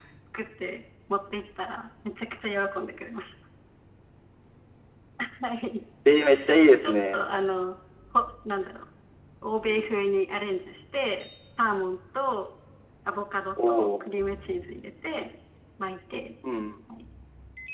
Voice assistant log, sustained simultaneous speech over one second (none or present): none